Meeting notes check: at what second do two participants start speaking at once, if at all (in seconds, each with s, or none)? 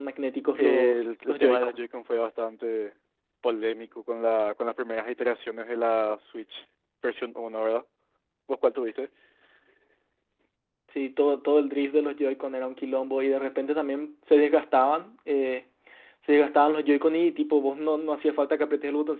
0.6 s